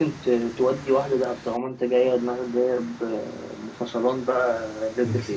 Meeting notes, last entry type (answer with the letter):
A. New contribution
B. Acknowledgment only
A